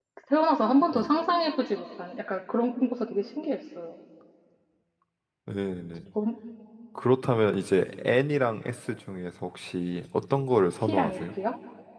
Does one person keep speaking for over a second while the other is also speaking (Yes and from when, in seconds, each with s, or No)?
No